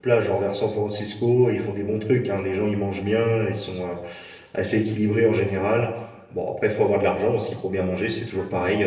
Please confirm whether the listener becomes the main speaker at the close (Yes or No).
No